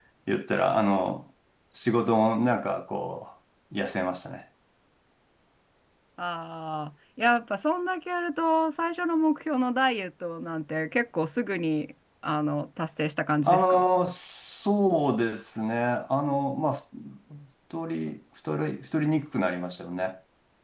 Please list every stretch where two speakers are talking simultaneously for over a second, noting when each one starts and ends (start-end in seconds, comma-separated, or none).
none